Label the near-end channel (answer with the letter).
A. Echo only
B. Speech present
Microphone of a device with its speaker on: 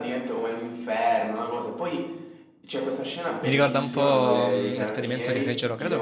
B